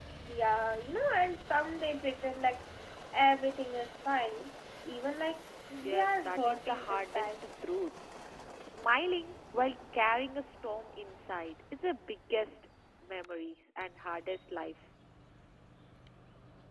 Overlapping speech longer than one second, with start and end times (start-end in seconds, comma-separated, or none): 5.8-7.3